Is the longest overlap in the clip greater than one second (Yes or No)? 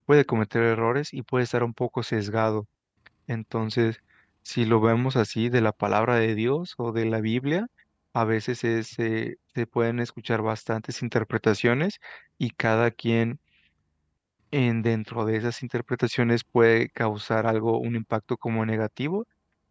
No